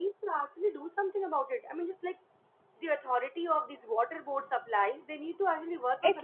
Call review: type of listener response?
taking over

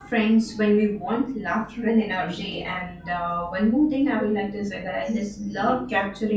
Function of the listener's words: listening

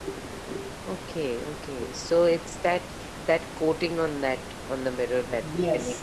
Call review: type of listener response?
taking over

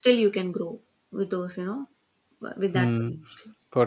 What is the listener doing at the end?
taking over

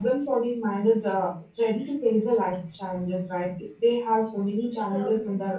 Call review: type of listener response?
listening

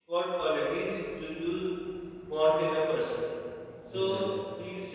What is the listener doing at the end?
listening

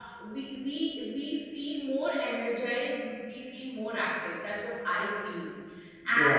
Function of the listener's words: listening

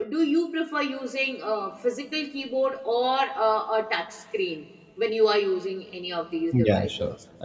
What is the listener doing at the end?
taking over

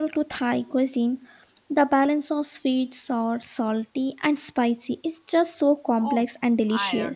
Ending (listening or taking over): taking over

